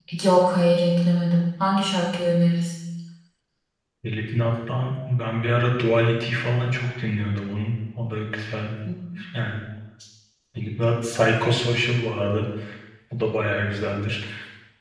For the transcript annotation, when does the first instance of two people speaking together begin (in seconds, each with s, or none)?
none